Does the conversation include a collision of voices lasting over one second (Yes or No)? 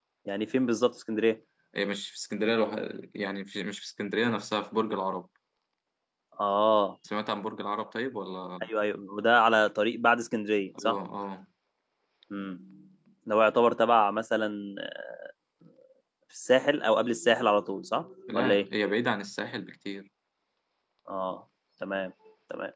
No